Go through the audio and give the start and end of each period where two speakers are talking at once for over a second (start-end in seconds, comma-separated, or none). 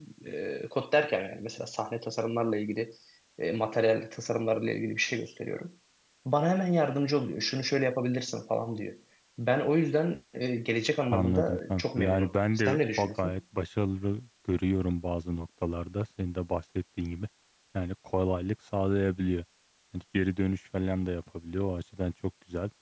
11.1-13.4